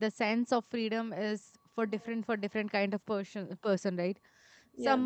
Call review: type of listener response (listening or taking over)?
listening